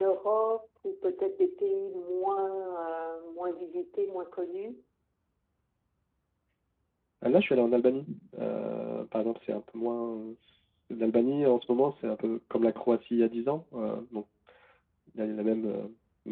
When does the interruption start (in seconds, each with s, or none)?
none